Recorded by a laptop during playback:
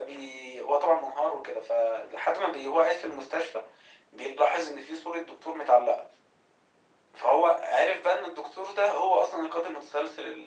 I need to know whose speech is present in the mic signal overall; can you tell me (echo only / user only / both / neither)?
echo only